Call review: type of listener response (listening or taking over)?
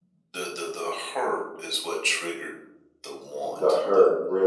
taking over